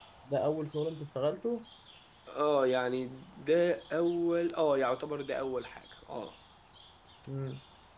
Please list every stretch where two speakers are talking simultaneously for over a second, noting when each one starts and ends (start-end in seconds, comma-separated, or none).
none